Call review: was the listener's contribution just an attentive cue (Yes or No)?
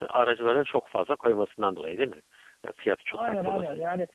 No